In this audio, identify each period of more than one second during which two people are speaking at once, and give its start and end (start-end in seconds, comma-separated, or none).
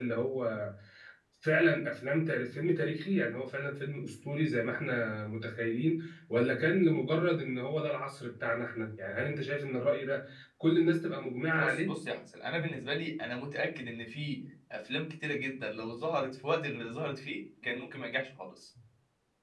none